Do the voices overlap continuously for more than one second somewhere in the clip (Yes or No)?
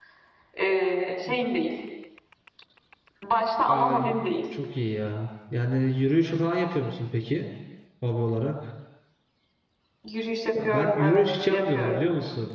Yes